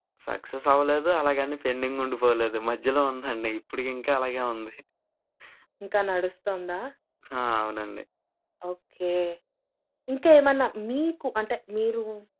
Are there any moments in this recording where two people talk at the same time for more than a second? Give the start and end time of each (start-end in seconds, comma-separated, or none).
none